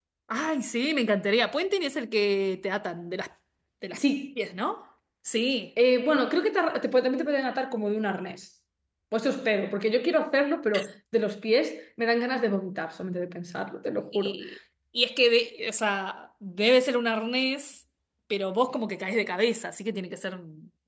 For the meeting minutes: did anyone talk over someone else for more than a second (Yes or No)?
No